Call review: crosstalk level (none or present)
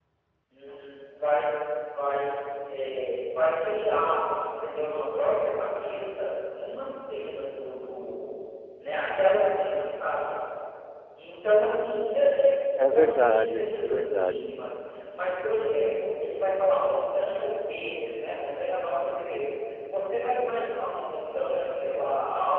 present